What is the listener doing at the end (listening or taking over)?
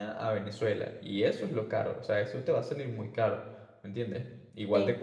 listening